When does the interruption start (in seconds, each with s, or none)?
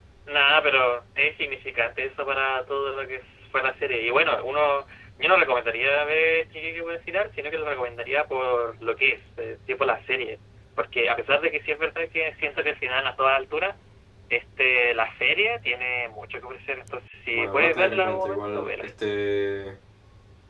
17.3 s